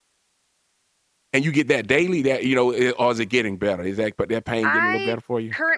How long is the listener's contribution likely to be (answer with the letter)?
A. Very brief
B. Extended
B